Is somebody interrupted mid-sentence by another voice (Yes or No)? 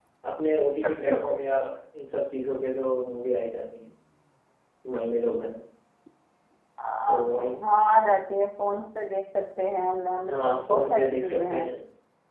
Yes